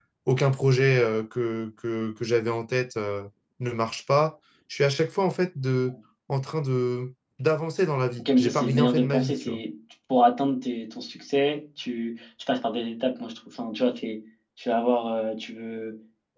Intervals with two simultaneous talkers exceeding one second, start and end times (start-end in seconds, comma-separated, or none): 8.2-9.6